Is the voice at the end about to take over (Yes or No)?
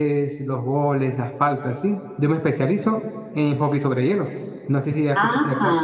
Yes